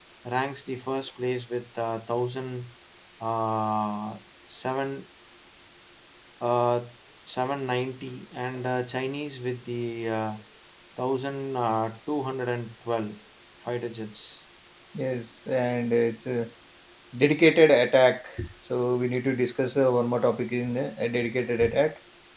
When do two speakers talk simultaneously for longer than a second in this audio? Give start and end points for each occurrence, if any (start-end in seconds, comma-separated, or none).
none